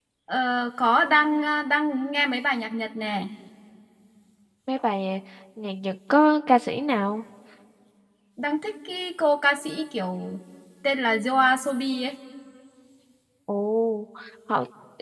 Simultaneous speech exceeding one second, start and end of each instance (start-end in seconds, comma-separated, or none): none